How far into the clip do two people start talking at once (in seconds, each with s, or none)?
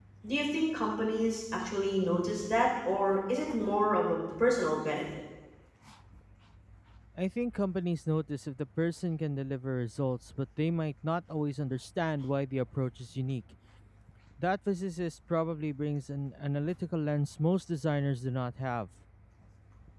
none